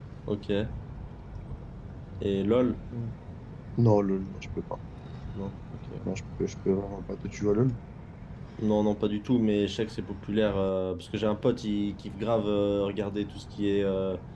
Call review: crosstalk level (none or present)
none